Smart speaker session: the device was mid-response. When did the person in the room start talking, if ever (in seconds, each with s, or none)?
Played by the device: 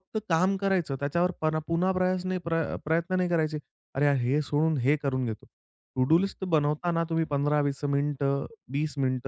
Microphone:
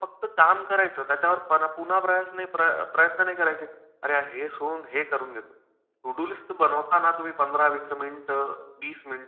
none